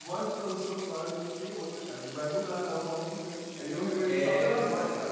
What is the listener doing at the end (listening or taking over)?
listening